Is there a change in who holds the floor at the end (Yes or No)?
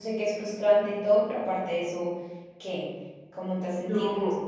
Yes